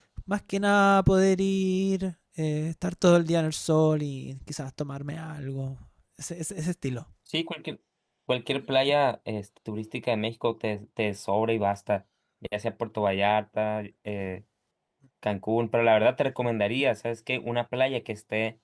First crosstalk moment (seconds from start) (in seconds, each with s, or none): none